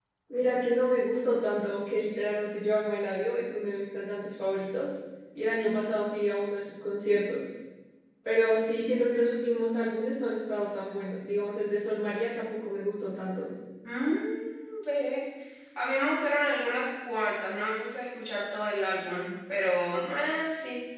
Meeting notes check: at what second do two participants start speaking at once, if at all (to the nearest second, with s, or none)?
none